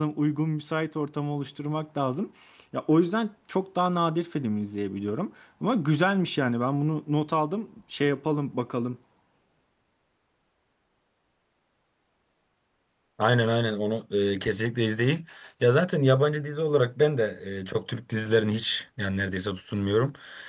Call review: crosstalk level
none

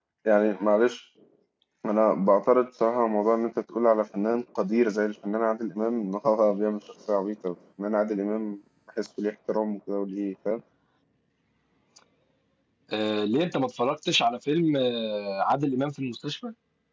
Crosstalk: none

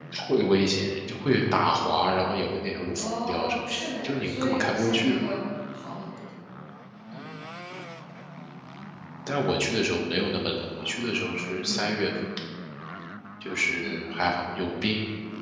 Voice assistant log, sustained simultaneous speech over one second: present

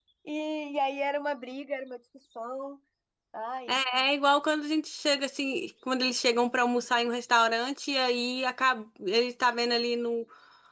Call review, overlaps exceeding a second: none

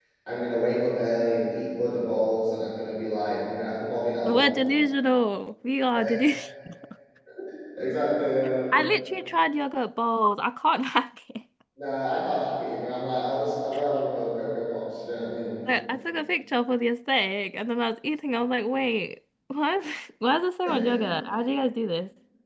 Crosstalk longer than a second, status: none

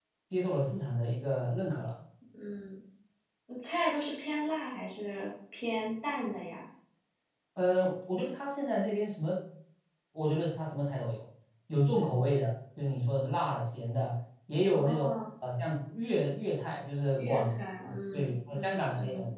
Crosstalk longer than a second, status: present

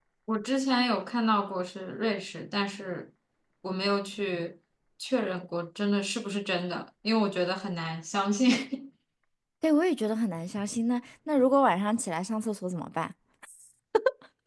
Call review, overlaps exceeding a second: none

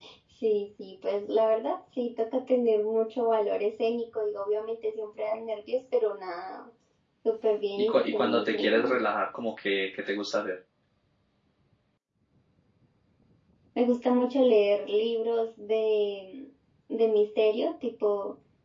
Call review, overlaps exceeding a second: present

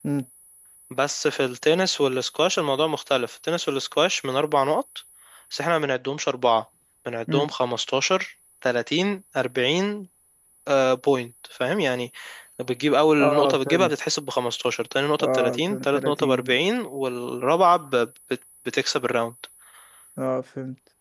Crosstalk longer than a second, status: present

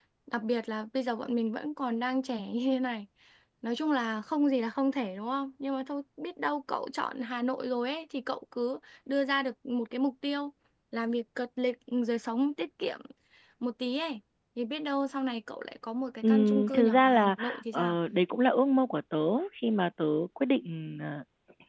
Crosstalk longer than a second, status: present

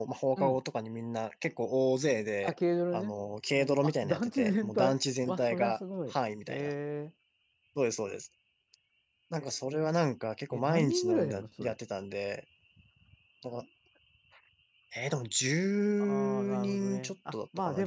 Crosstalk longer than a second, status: present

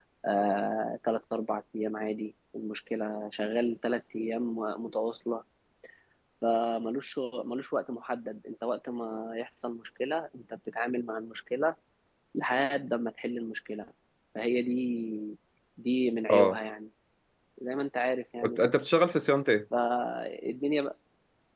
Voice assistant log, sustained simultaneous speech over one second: none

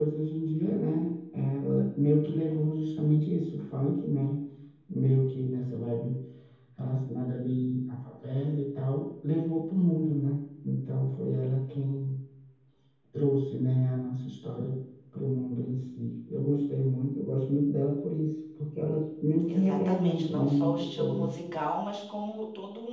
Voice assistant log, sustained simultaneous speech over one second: present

